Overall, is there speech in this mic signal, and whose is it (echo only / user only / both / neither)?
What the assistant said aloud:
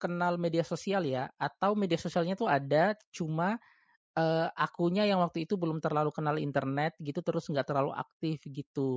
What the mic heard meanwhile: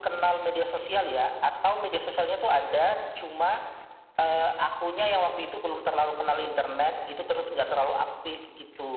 echo only